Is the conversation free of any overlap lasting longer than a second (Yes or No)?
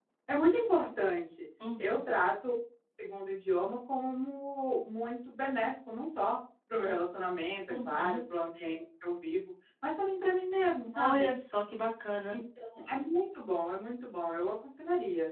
Yes